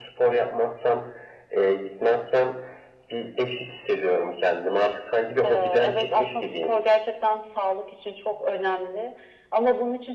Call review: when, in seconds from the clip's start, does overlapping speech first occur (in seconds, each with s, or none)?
5.4 s